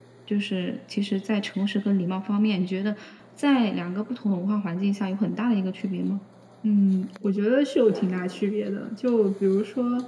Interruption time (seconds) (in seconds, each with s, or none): none